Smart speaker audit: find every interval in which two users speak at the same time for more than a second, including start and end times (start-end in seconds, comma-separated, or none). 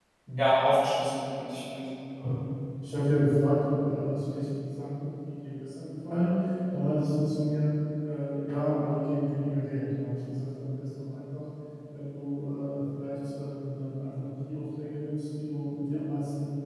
none